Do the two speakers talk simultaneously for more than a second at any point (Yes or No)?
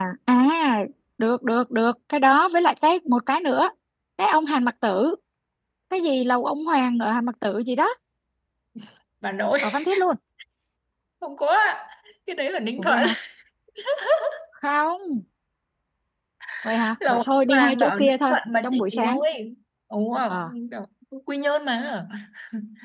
Yes